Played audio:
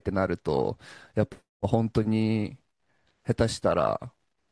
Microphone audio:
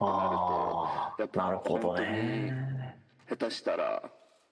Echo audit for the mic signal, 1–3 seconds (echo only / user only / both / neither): both